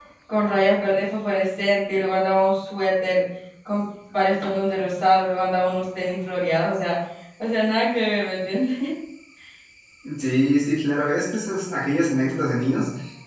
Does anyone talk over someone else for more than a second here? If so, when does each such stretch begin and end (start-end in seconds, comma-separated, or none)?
none